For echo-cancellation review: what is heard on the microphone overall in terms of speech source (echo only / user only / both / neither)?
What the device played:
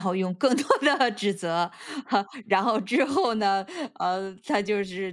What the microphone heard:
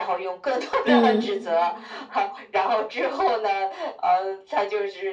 both